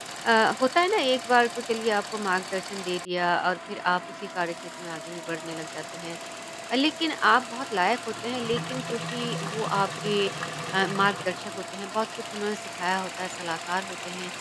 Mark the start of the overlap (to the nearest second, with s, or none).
none